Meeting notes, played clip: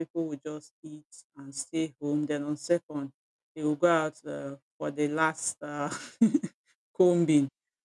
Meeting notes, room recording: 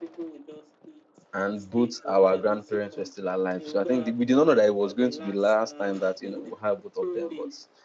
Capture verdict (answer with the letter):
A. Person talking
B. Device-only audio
A